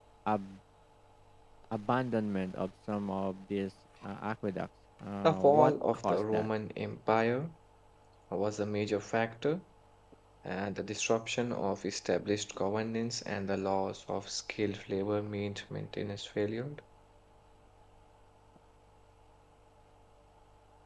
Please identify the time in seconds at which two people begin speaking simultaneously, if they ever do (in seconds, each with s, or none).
5.2 s